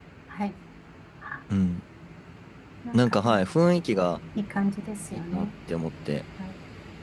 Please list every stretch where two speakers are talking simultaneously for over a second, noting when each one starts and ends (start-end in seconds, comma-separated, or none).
none